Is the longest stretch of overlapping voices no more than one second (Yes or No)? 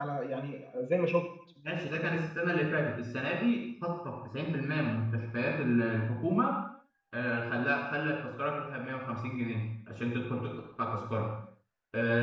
Yes